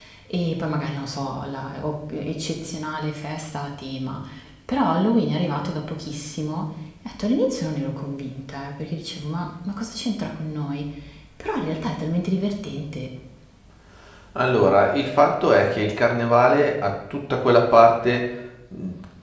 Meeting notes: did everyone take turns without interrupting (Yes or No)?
Yes